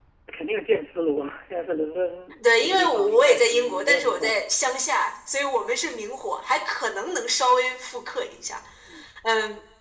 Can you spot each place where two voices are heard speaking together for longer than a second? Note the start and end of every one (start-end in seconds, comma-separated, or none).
2.6-4.4